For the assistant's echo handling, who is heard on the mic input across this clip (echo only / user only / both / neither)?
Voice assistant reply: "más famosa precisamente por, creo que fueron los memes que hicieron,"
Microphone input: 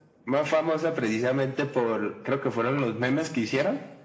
echo only